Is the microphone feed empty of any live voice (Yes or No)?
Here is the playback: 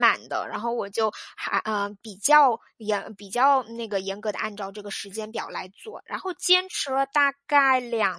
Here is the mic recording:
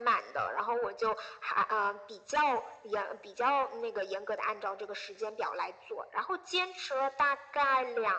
Yes